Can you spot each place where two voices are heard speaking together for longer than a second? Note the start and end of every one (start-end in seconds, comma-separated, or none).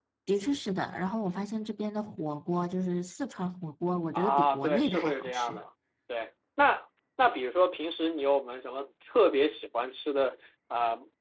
4.1-5.6